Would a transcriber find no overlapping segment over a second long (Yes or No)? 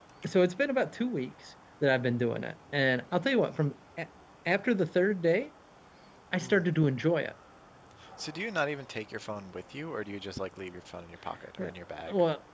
Yes